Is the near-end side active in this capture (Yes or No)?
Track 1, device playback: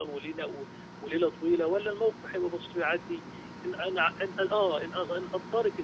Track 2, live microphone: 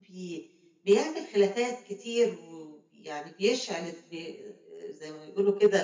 Yes